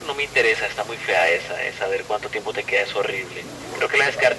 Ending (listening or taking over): listening